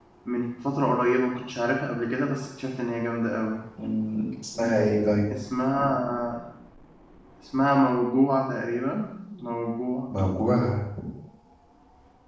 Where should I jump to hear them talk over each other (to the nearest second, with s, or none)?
none